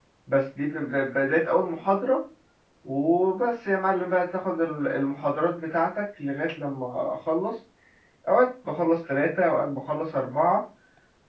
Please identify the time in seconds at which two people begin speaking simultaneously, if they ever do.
none

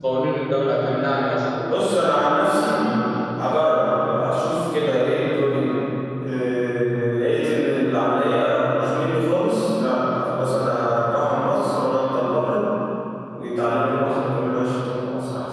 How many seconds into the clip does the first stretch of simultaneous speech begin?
1.7 s

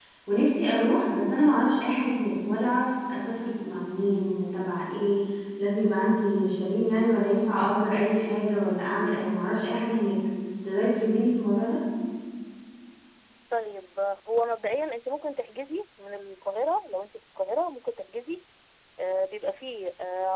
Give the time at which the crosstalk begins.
none

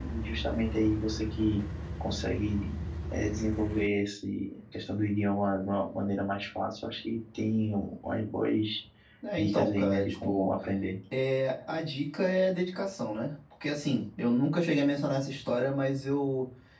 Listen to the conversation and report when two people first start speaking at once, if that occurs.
9.4 s

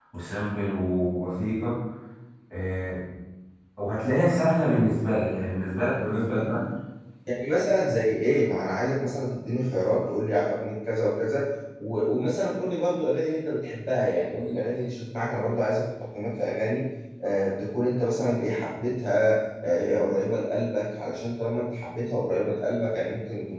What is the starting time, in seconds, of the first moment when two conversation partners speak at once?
none

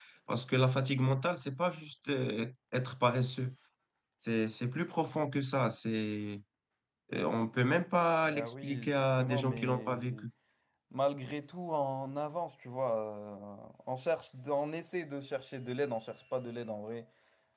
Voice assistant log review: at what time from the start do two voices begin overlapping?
8.2 s

